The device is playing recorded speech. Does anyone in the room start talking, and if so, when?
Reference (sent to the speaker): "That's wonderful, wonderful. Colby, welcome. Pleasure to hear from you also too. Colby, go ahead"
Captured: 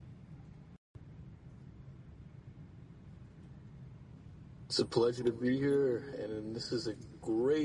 5 s

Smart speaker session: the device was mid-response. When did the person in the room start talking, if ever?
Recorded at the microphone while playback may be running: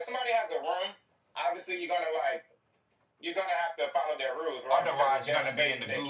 5 s

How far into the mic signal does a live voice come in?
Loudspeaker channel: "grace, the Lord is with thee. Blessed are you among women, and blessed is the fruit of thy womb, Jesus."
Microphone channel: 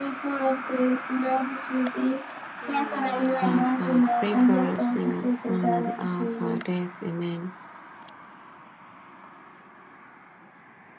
3 s

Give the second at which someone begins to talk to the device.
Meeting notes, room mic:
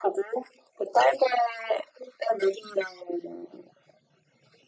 none

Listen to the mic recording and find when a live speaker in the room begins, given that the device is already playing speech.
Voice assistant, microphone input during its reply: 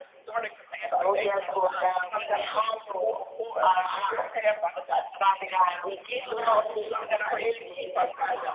6 s

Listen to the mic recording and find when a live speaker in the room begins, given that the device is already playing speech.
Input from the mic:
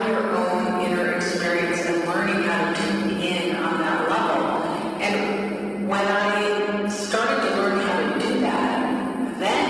none

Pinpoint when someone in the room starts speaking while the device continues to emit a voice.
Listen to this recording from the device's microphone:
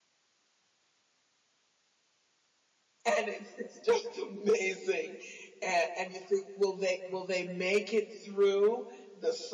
3 s

